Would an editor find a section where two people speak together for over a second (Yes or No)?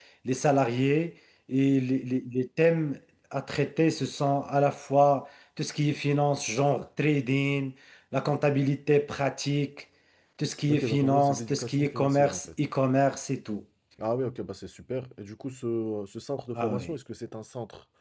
Yes